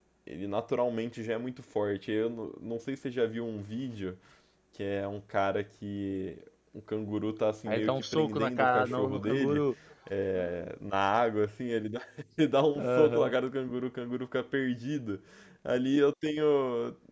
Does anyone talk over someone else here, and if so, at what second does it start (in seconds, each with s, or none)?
7.7 s